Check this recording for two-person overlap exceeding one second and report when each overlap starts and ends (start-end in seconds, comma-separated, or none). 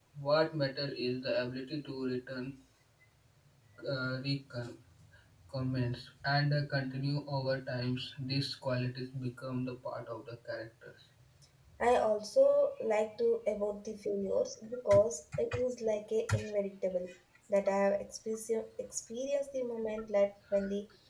none